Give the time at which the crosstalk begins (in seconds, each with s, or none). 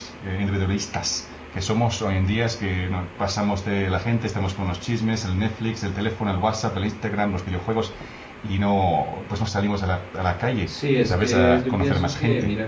10.7 s